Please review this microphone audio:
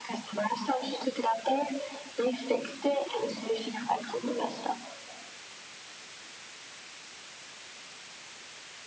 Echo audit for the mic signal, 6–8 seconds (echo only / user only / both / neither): neither